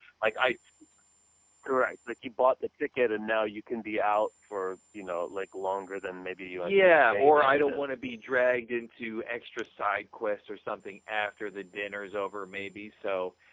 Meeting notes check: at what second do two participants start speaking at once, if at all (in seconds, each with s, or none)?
6.4 s